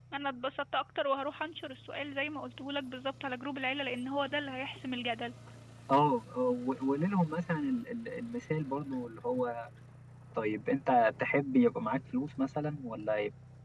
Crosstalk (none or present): none